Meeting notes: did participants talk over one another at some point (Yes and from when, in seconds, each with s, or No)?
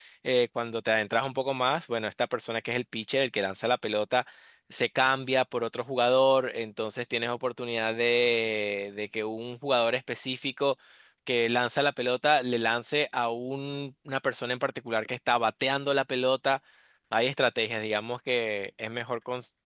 No